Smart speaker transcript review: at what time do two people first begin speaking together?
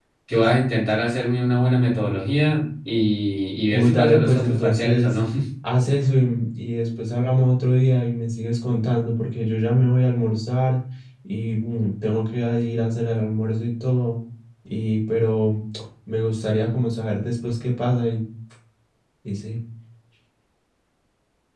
4 s

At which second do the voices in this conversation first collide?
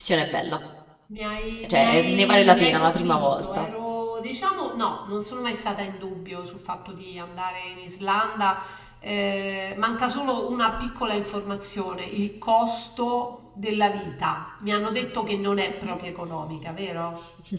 2 s

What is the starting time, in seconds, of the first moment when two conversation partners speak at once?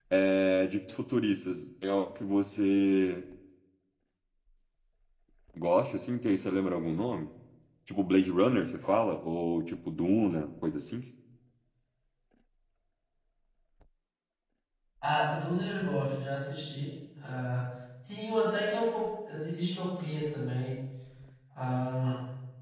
none

